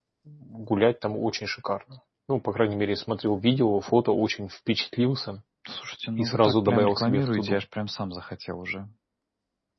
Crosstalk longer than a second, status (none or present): present